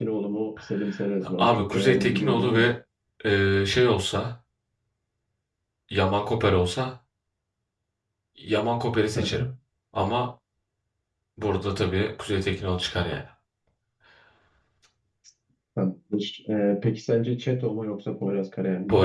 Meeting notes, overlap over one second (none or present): present